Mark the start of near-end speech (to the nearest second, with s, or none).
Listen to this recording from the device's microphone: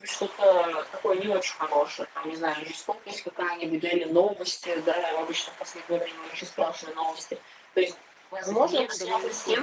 8 s